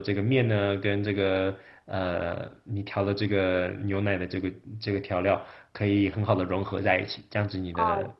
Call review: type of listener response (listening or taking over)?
taking over